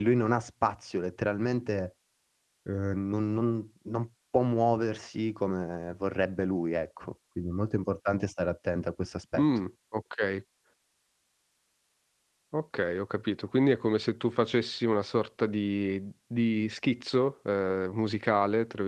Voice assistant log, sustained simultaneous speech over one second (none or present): none